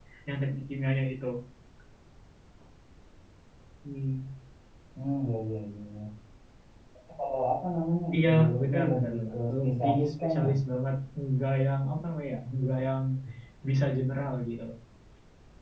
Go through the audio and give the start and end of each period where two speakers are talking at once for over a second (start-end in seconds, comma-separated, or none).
8.1-10.5